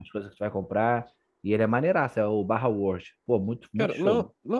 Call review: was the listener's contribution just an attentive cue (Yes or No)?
No